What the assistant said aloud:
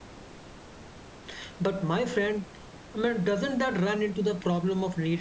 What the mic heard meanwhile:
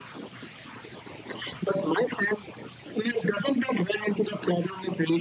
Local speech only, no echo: none

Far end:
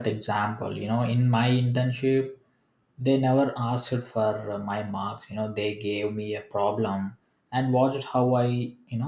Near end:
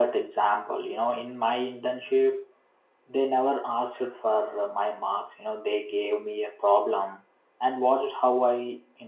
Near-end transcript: none

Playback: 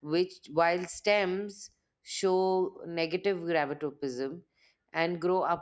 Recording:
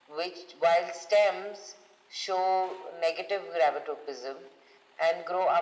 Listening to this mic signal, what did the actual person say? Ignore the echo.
none

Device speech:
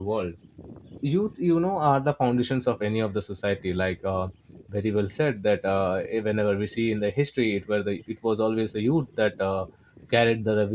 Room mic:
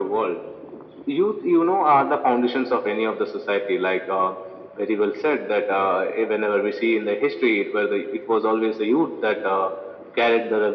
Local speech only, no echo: none

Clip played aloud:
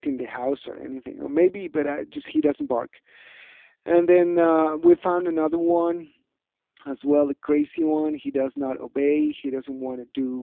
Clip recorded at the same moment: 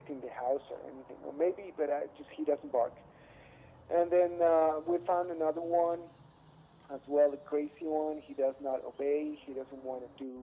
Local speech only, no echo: none

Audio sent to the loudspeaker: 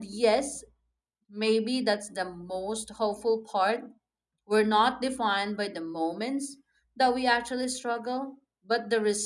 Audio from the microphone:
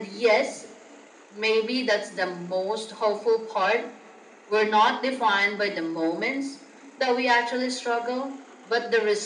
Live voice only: none

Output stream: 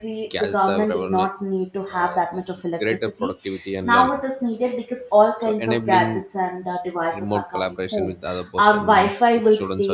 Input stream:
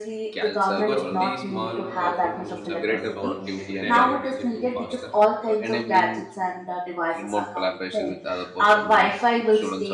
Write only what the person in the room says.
Because these small, powerful tools have transformed everyday activities into faster,

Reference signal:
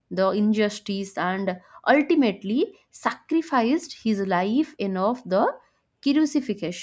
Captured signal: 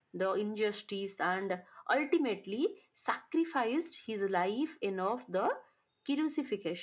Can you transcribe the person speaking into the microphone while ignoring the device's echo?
none

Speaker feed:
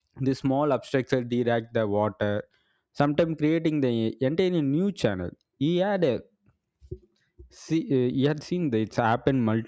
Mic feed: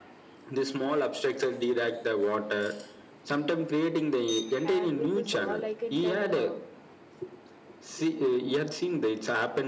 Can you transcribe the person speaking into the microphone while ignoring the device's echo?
and with this all i can tell uh,

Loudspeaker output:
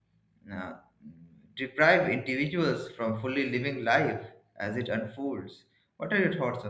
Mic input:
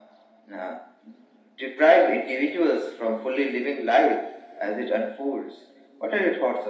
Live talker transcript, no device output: none

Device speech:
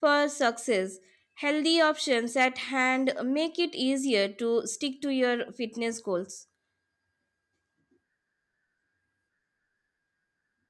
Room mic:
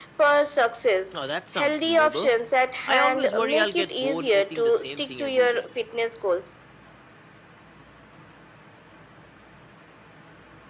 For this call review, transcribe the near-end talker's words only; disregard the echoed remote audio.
Oh, that sounds doable. I always worry I'll get bored eating the same thing every day.

